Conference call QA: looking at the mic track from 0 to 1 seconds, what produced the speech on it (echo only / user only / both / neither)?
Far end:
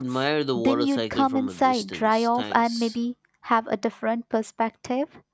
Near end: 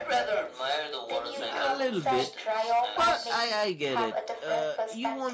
echo only